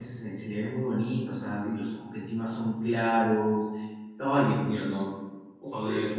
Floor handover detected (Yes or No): Yes